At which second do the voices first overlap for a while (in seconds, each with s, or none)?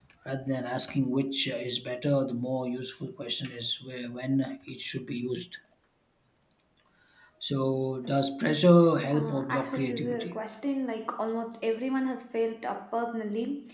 9.1 s